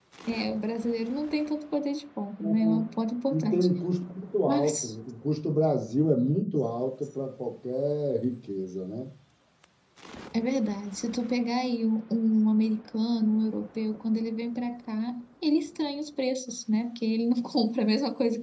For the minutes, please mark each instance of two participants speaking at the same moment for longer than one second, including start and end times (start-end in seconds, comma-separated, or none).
none